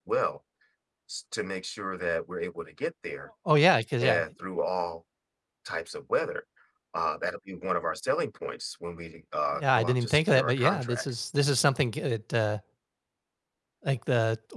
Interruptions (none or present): present